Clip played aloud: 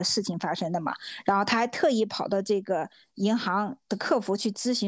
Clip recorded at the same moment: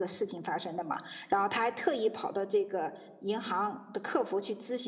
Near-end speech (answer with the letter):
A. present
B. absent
B